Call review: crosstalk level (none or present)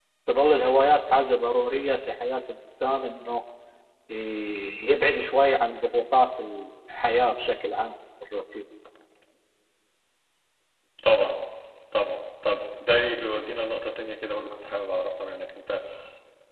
none